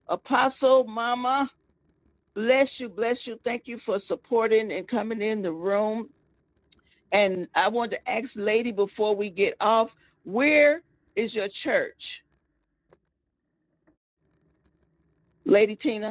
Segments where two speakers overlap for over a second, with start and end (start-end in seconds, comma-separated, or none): none